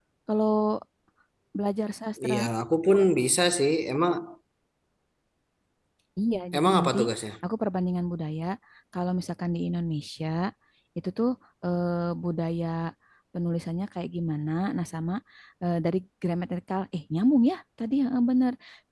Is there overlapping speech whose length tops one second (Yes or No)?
No